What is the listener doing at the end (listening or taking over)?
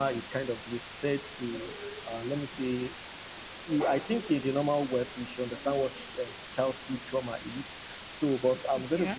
listening